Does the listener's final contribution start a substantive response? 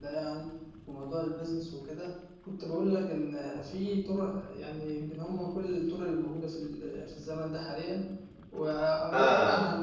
No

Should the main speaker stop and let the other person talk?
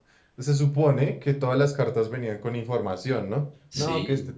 No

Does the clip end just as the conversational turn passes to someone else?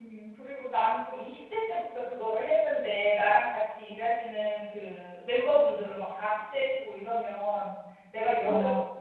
No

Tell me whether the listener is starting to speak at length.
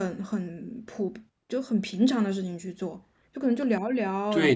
Yes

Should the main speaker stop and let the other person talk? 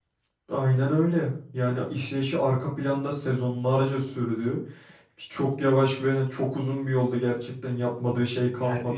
Yes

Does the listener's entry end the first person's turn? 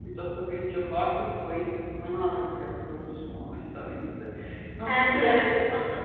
Yes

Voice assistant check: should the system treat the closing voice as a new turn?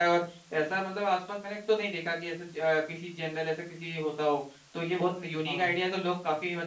No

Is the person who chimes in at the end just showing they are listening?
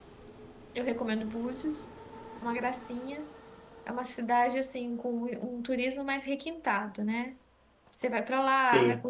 Yes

